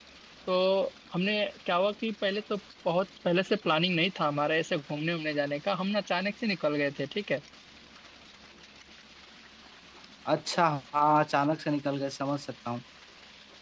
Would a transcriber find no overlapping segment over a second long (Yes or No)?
Yes